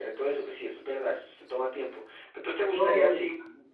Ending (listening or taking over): listening